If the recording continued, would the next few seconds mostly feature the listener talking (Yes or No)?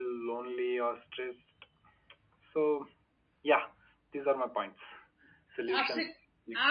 Yes